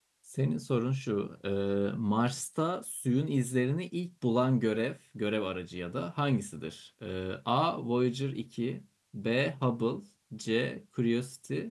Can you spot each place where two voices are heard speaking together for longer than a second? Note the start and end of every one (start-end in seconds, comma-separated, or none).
none